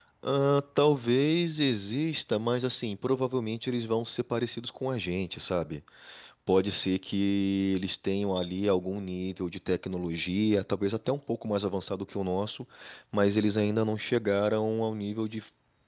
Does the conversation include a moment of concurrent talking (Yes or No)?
No